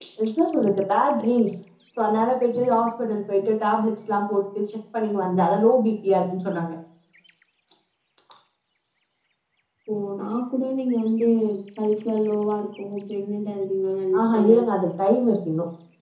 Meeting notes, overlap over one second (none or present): none